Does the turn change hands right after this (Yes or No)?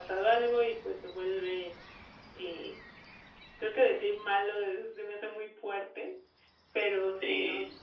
No